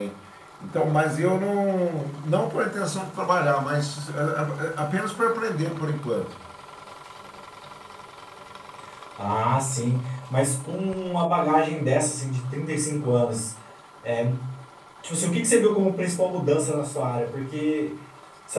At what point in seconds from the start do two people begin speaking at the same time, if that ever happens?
none

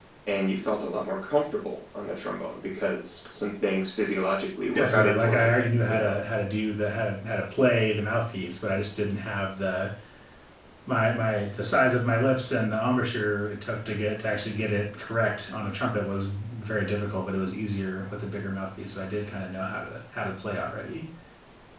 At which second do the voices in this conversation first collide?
4.8 s

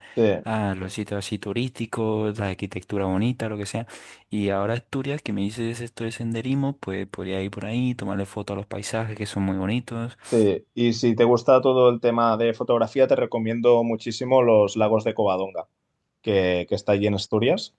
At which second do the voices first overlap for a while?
none

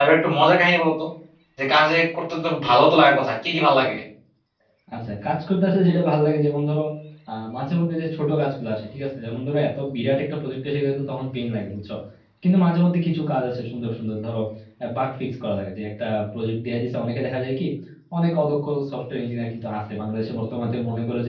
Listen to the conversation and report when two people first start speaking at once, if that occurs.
none

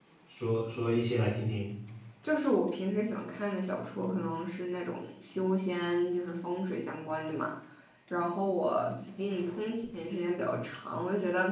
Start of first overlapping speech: none

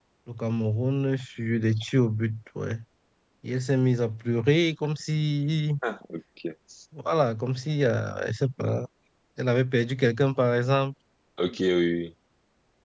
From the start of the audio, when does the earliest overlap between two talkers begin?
none

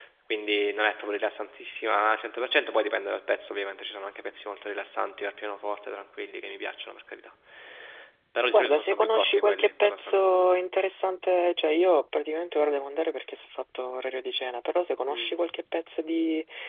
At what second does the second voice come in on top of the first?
8.5 s

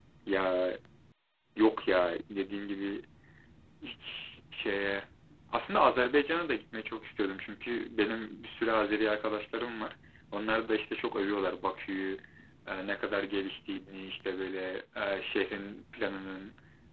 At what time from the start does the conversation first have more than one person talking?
none

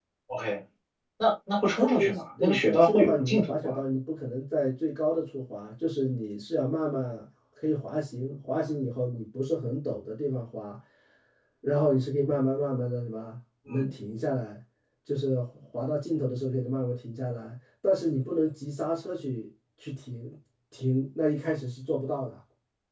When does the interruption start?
1.8 s

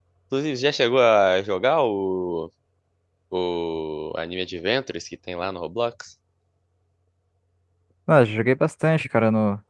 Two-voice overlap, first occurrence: none

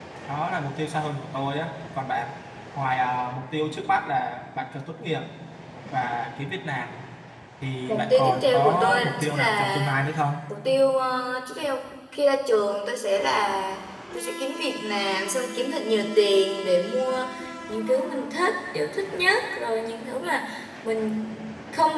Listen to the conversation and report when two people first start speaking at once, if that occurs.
7.9 s

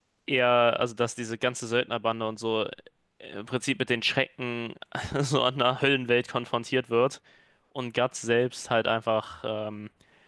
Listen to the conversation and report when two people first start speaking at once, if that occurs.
none

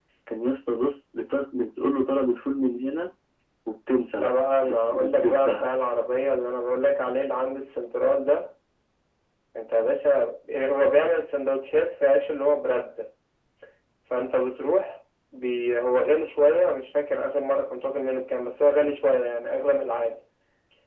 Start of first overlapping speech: 4.2 s

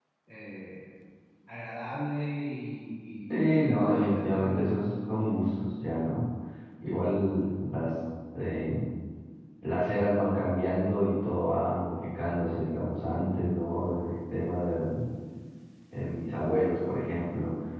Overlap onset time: 3.3 s

